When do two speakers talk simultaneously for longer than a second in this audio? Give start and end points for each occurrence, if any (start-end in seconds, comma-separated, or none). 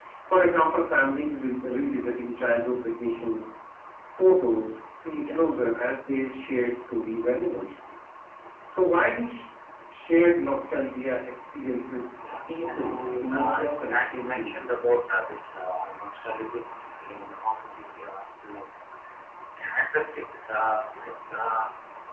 12.3-14.7